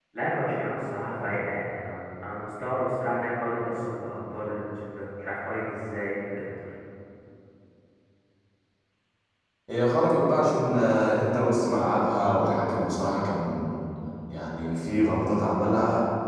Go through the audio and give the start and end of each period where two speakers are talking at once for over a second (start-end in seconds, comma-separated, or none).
none